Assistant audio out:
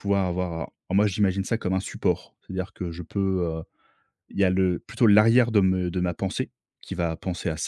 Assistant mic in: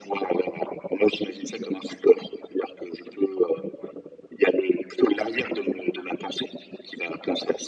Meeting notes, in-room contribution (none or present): none